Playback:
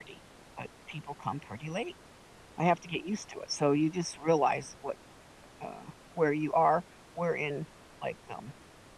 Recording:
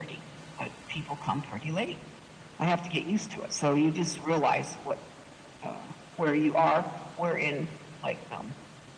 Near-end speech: none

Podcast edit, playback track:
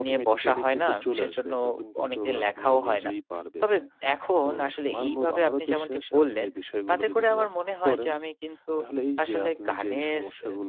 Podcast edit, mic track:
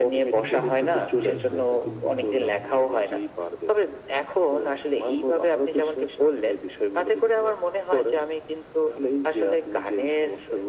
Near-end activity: present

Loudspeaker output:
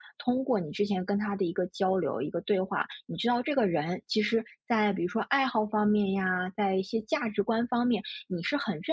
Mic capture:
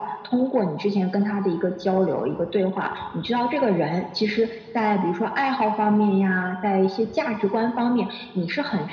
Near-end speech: none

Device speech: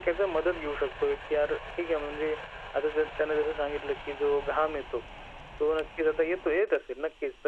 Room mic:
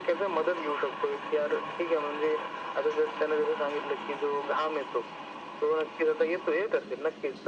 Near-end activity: none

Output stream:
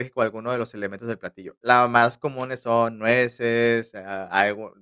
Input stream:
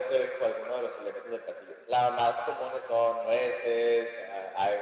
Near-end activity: none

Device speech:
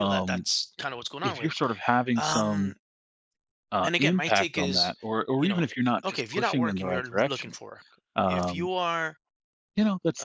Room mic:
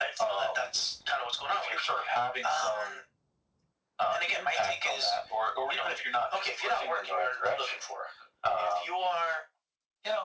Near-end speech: none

